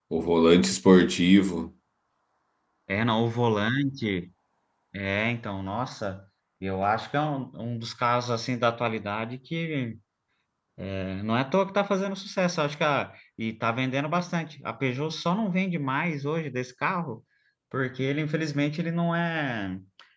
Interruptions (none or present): none